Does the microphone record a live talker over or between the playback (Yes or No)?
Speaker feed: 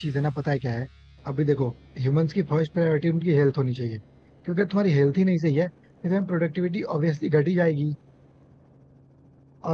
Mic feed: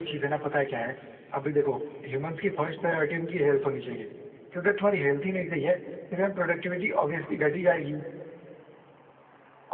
No